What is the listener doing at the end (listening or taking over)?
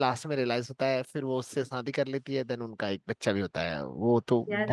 taking over